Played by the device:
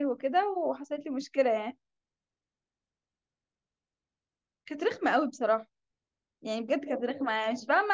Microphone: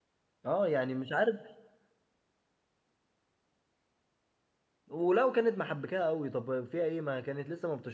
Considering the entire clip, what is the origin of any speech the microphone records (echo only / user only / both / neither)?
user only